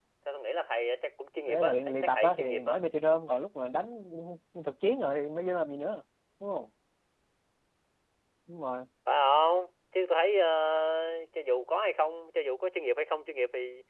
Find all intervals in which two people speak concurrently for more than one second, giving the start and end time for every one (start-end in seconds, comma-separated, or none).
1.5-2.8